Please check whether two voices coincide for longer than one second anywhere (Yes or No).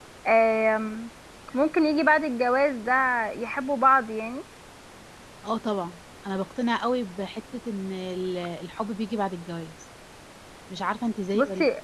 No